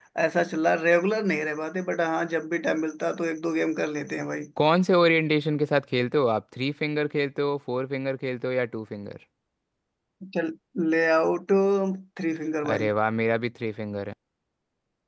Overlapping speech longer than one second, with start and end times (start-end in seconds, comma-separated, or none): none